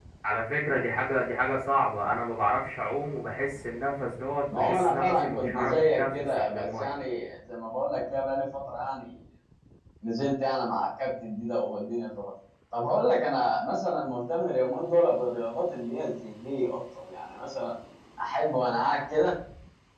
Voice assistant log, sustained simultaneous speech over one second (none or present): present